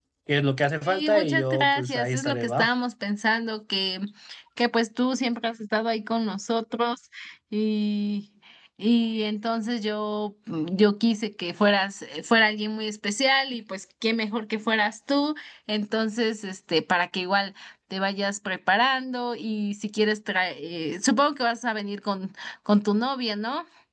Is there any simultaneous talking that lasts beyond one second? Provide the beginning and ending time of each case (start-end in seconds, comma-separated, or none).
0.8-2.7